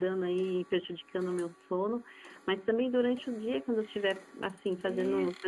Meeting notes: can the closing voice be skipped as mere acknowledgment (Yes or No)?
Yes